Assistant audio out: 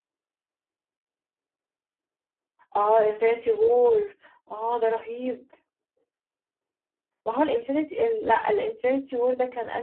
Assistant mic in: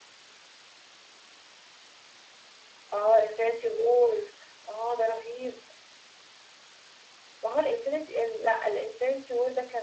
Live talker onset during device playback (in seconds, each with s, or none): none